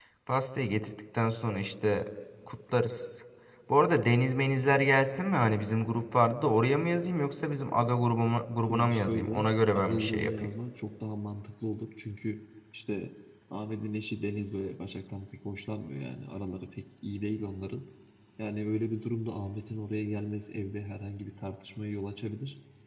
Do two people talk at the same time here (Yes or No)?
Yes